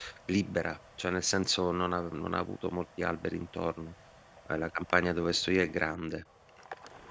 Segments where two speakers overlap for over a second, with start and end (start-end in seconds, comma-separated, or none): none